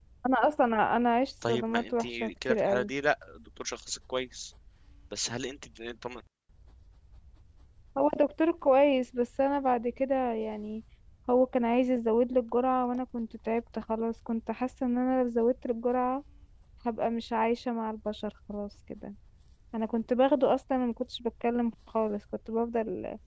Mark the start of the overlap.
1 s

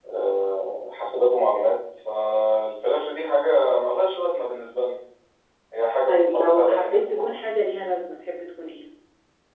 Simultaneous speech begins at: 6 s

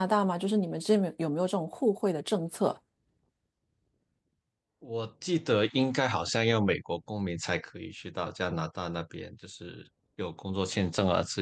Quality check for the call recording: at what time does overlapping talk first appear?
none

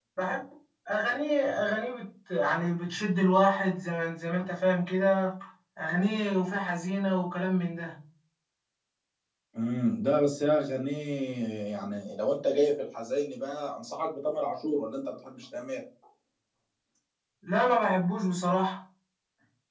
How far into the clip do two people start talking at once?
none

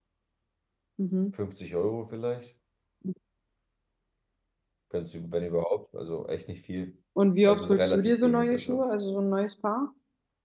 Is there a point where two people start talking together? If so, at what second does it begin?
7 s

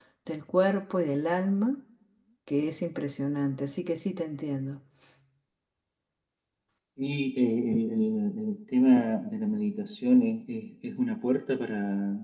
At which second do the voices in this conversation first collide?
none

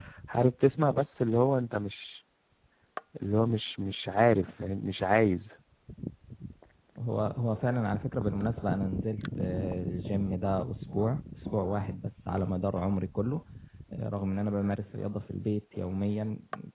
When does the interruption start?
none

